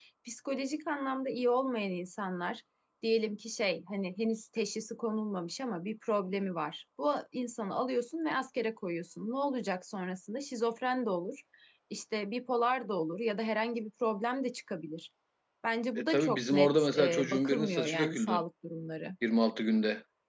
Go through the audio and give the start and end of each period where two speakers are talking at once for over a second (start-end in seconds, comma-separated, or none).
16.1-18.4